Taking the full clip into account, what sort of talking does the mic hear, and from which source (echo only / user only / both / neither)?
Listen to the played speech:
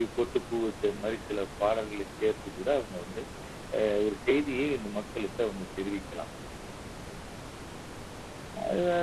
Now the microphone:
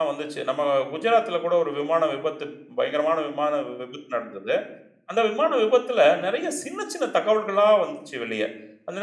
user only